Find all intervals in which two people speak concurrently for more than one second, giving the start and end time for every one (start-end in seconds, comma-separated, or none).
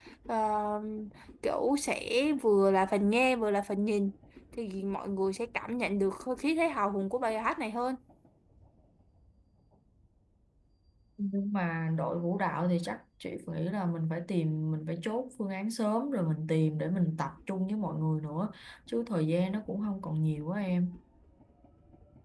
none